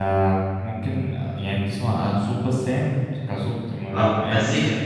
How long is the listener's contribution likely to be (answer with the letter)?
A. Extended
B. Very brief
A